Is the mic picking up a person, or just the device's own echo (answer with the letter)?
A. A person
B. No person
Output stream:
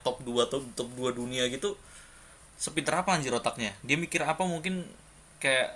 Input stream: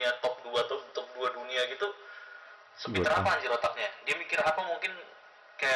A